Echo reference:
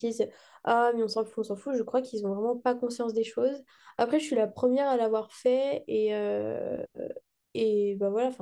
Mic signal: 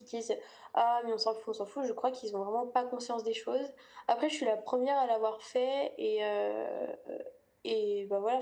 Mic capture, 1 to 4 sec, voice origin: echo only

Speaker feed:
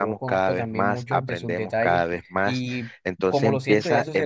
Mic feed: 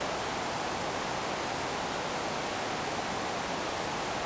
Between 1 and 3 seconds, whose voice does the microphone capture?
neither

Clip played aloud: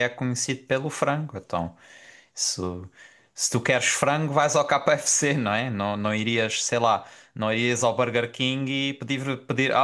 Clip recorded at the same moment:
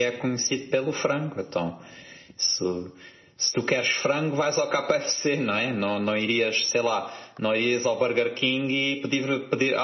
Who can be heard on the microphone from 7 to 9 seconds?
echo only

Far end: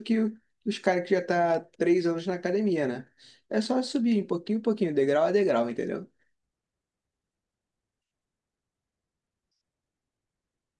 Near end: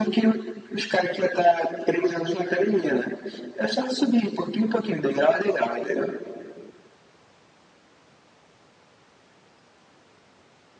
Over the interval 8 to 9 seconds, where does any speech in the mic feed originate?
neither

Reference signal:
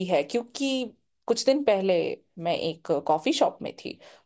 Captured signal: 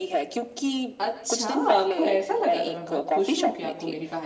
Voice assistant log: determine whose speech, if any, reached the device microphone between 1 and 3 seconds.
both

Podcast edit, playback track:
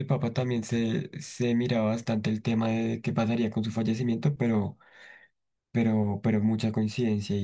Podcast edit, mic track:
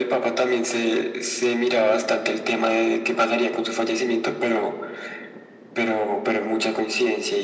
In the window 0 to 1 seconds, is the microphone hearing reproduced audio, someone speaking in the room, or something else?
echo only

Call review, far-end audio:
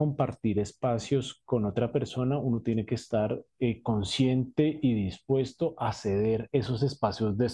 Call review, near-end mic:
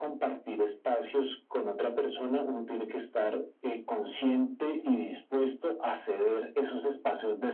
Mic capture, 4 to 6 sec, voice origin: echo only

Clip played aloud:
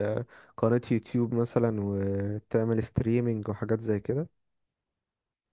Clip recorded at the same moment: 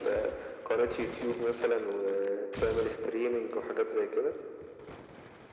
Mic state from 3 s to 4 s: echo only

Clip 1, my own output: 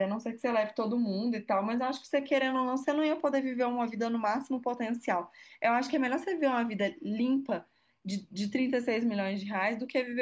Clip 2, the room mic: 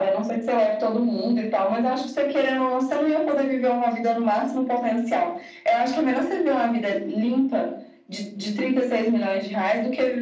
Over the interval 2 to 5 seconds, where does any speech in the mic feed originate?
echo only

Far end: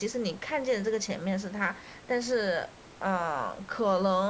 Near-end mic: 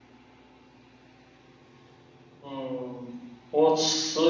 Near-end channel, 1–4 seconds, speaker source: user only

